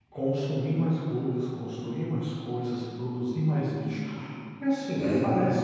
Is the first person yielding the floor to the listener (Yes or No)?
No